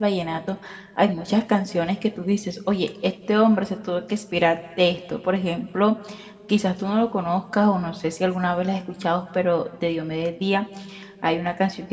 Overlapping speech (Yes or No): No